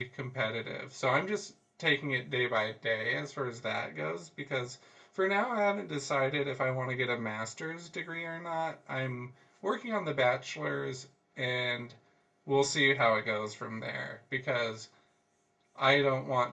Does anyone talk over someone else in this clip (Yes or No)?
No